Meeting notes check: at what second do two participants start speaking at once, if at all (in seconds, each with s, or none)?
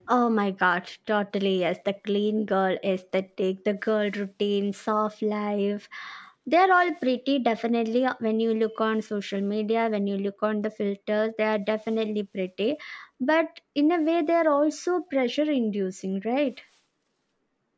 none